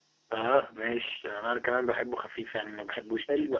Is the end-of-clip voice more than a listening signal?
Yes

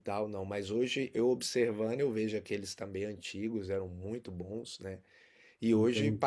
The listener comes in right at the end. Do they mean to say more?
No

